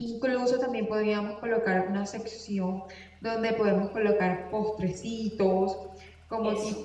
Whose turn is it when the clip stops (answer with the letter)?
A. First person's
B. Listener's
A